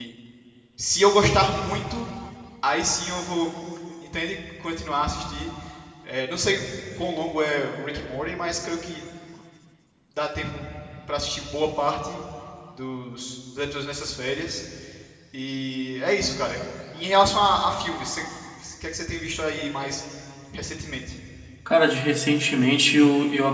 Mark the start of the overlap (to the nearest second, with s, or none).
none